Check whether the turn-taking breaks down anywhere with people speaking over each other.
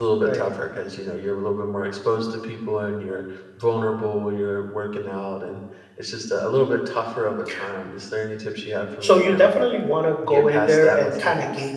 Yes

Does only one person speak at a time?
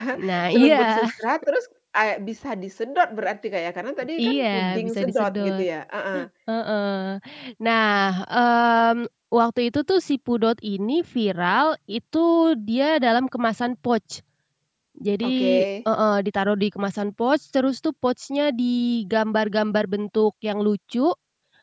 No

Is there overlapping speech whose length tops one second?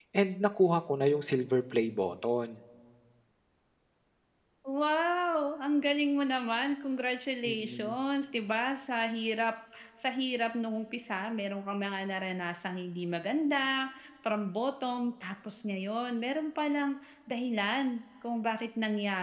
No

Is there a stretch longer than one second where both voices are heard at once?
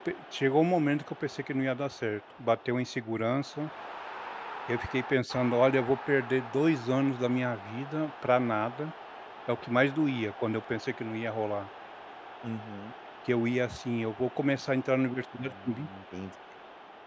No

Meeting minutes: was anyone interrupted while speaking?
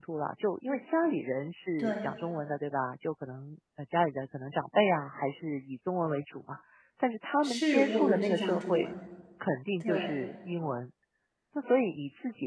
Yes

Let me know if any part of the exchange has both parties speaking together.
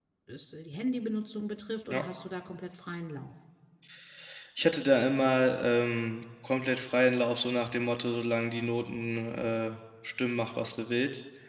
No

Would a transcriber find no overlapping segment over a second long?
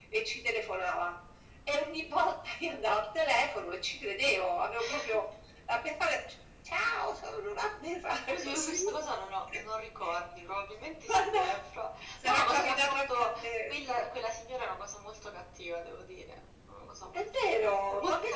No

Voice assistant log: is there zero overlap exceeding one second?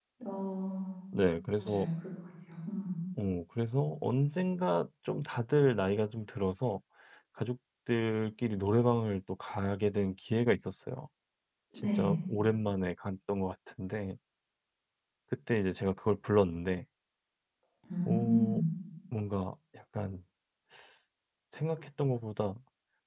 Yes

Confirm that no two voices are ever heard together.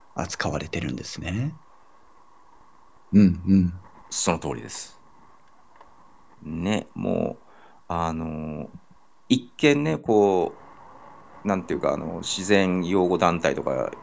Yes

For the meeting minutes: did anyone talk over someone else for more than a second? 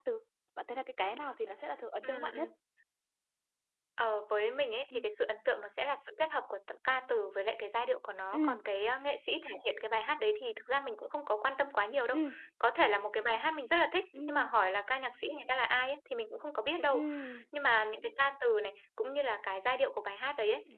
No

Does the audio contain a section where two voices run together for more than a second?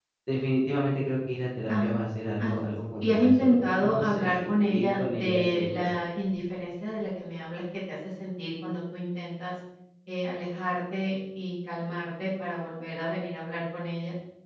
Yes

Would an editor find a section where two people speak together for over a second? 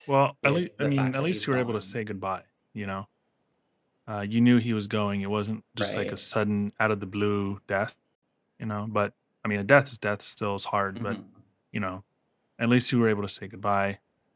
Yes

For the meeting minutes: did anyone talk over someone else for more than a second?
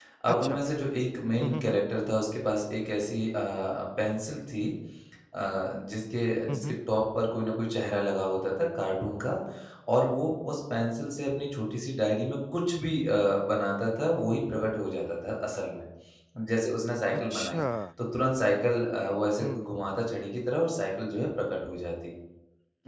No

